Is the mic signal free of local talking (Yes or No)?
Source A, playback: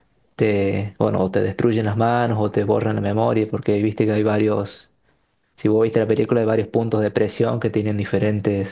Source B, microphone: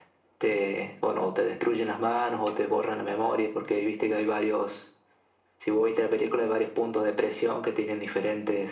Yes